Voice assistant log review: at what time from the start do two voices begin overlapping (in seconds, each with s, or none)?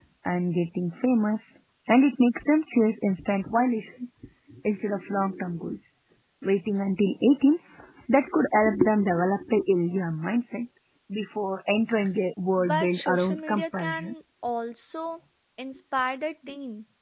12.6 s